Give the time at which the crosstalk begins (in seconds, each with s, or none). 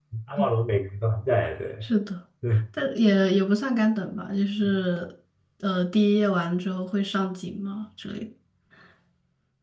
none